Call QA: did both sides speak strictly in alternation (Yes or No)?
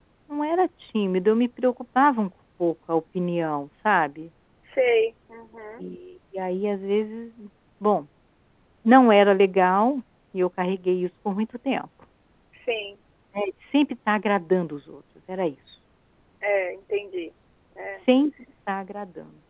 Yes